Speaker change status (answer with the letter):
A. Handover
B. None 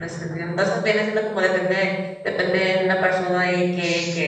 B